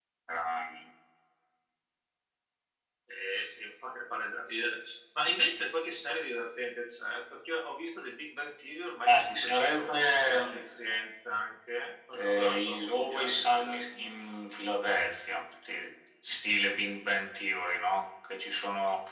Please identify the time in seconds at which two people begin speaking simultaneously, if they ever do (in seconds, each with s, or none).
9.0 s